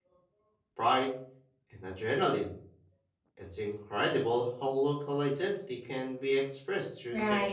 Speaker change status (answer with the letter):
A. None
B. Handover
B